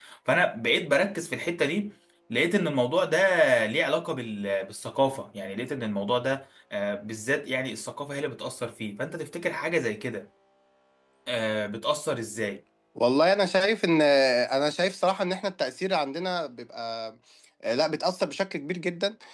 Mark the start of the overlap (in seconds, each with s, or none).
none